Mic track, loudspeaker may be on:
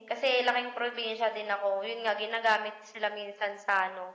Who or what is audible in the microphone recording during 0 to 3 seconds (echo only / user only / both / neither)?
echo only